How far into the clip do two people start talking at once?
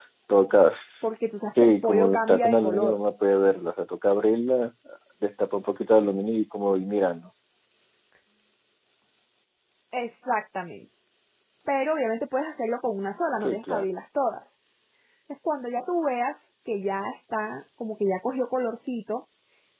2 s

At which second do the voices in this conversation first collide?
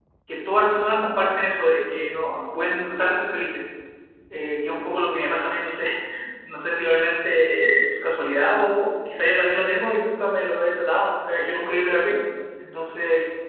none

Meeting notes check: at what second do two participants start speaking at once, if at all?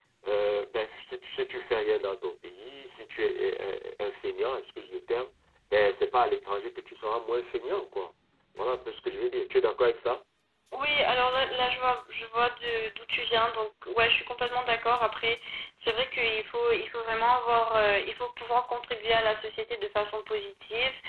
none

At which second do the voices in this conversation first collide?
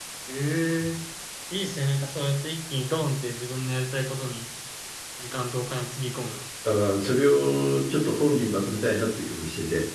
none

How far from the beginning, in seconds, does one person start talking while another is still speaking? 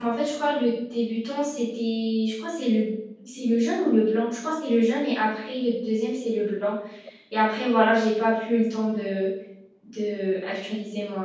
none

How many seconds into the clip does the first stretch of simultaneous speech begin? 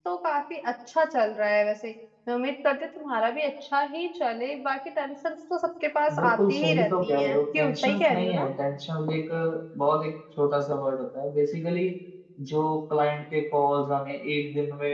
6 s

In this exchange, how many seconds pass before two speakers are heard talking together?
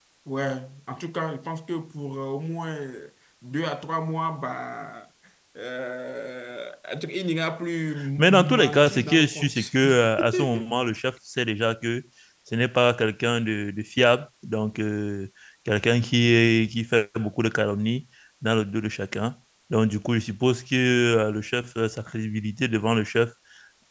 8 s

